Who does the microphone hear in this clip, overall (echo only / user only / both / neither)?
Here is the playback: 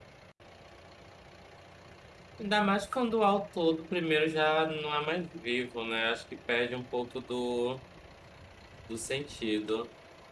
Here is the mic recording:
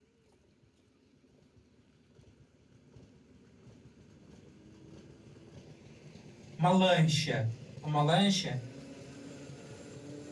user only